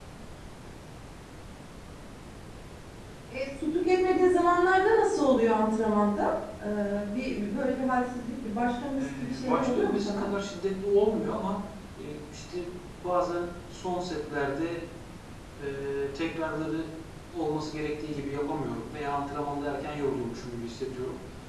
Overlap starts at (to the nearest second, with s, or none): 9 s